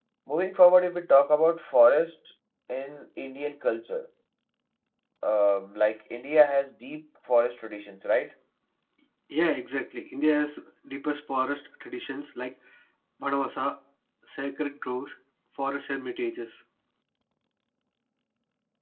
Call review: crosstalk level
none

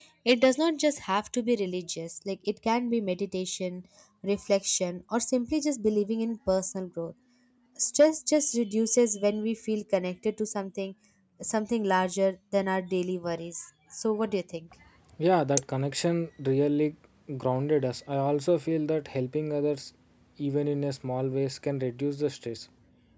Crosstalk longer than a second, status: none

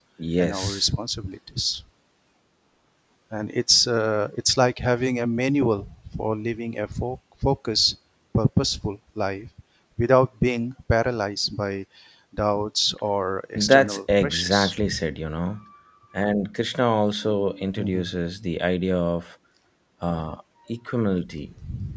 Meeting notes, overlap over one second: present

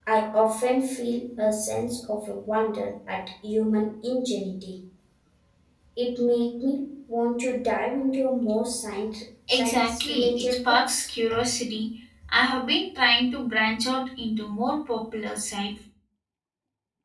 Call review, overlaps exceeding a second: present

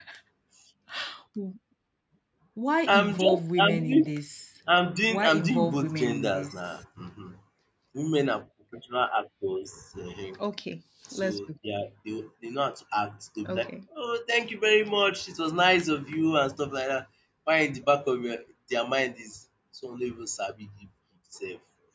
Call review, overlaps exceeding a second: present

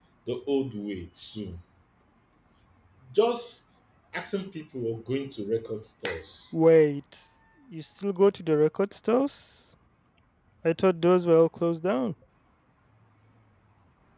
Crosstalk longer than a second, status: none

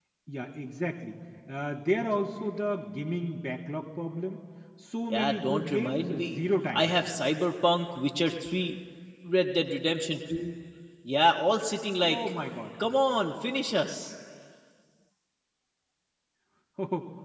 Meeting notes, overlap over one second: present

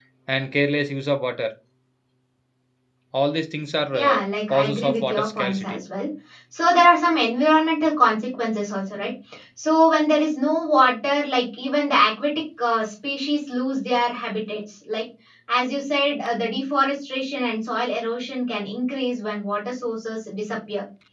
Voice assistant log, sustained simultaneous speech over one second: present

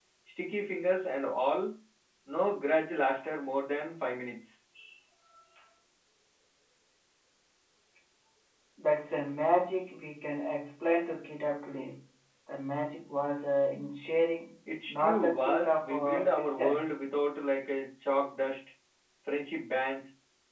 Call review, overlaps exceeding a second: present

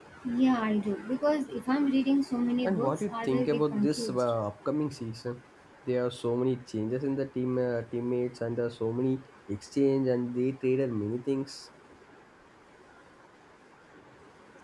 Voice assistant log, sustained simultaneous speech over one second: present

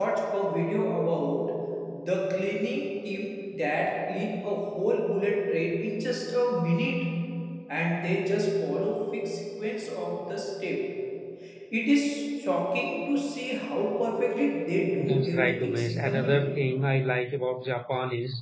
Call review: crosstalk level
present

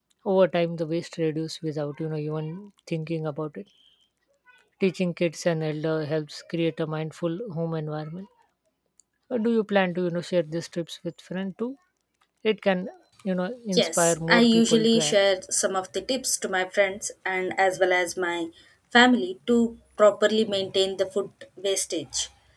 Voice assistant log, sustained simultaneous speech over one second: present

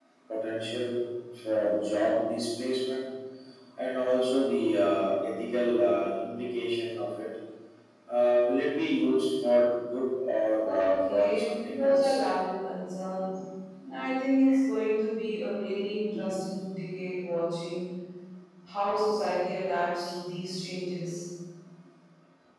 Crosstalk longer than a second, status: present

